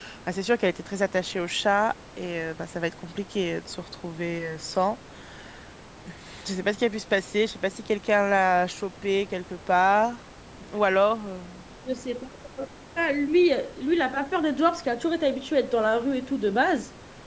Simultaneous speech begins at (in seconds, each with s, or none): none